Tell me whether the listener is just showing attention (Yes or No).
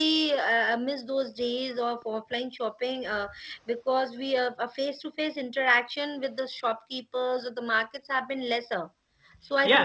No